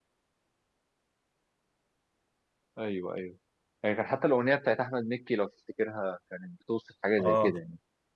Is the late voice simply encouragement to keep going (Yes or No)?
No